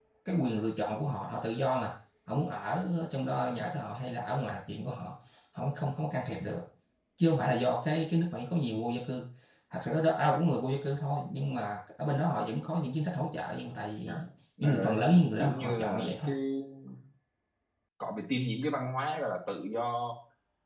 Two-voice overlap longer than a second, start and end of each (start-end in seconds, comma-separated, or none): 14.6-16.3